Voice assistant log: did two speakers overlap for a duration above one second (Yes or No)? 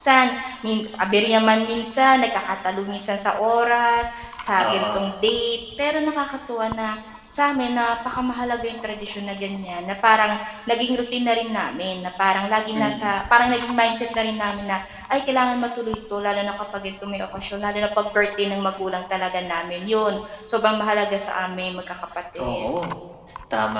No